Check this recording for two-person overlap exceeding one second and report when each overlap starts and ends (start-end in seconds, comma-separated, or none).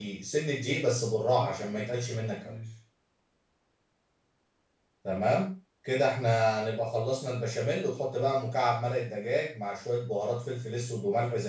1.3-2.5